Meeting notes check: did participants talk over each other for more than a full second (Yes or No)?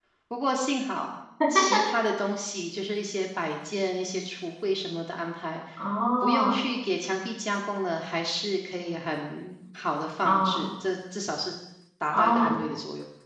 No